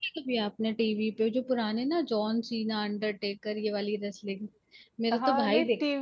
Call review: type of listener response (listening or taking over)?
taking over